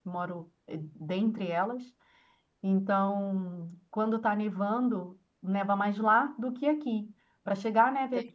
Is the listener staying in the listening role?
Yes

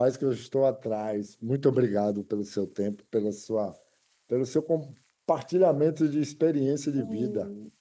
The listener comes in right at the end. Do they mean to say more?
Yes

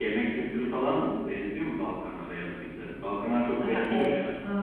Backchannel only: No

